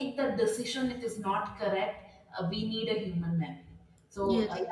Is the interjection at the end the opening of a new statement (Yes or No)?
No